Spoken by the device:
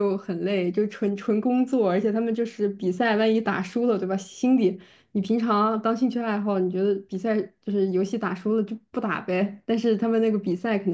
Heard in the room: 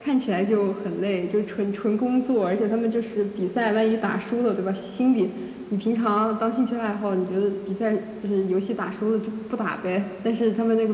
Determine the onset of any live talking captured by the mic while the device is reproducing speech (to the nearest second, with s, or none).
none